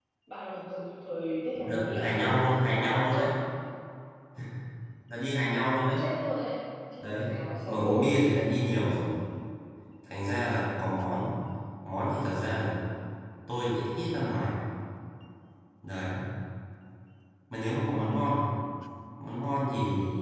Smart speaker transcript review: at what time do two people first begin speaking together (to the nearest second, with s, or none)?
2 s